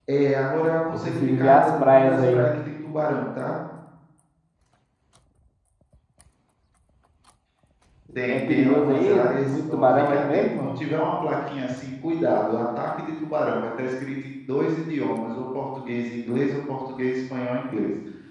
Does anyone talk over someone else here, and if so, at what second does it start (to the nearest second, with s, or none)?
1 s